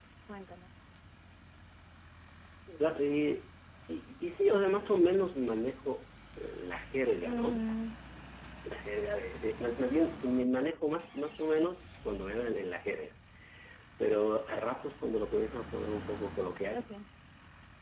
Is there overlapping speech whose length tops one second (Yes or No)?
No